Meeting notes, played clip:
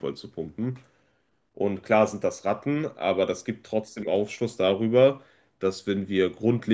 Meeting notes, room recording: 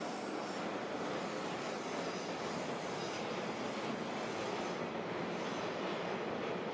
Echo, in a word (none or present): none